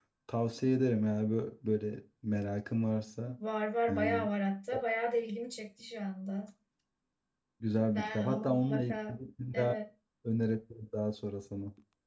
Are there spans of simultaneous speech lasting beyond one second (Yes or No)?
Yes